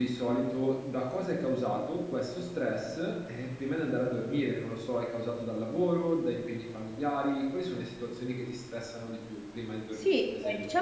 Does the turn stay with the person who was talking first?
No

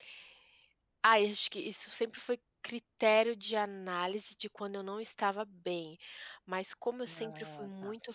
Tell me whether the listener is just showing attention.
Yes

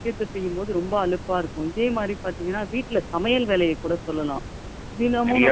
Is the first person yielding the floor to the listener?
Yes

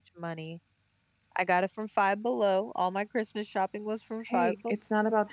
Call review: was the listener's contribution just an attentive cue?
No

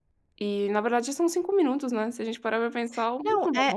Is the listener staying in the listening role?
No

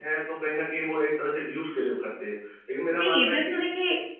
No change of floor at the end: No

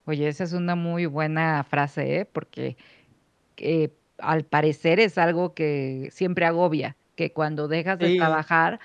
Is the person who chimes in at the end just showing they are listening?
Yes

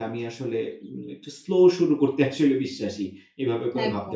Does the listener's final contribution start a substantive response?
Yes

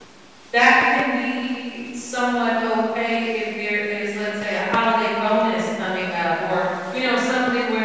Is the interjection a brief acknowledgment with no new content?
Yes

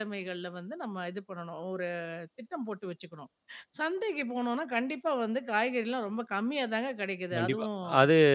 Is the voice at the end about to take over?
Yes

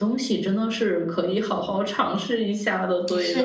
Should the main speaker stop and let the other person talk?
Yes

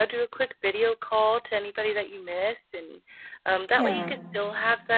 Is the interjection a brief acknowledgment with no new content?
Yes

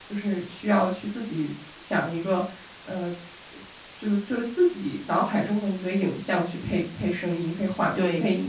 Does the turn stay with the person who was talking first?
No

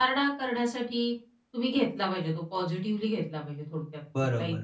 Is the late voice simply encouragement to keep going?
No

